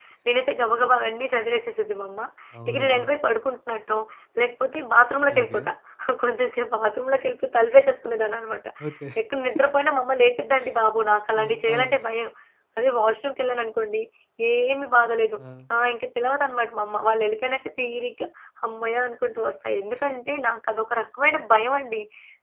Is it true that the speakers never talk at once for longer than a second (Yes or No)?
Yes